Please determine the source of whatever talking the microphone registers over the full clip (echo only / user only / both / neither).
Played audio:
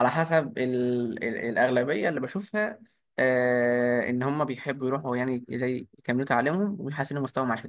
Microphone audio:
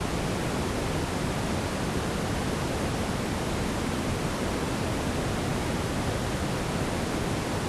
neither